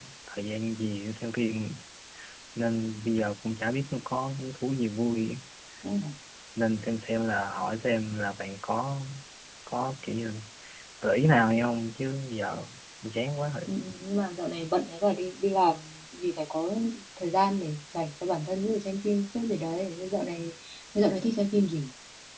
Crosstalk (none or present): none